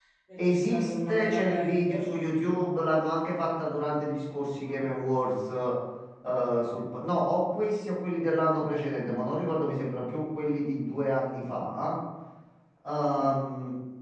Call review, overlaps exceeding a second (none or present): present